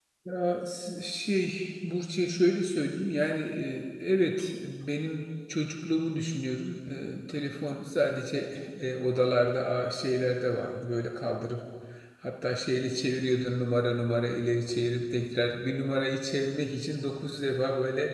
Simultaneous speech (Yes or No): No